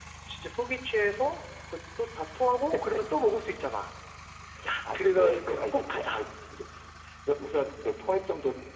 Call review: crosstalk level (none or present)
present